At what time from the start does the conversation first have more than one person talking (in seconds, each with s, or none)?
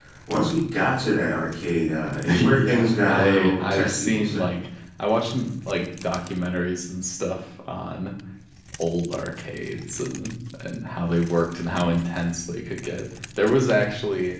2.2 s